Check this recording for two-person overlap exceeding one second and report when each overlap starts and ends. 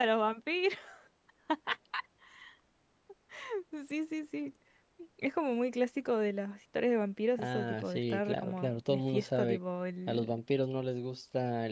7.4-9.6

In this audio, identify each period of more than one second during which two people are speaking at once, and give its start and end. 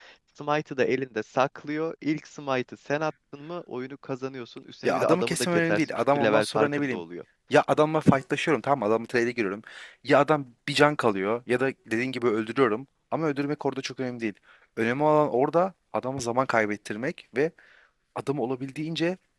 4.8-7.0

